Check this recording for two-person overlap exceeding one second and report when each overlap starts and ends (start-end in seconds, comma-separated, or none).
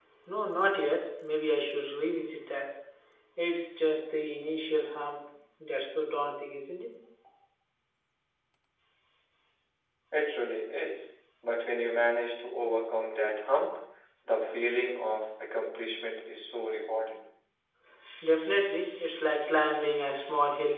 none